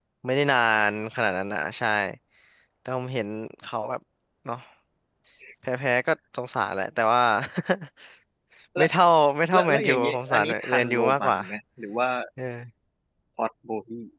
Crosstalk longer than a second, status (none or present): present